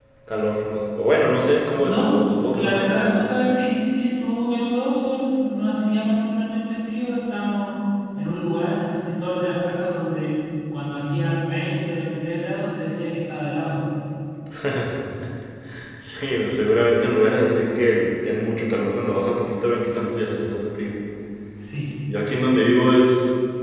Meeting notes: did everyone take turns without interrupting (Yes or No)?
No